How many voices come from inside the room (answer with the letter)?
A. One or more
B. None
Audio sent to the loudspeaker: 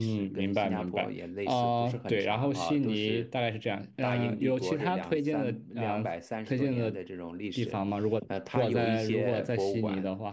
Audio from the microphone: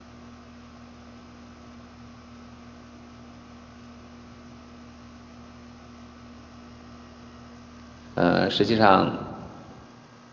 A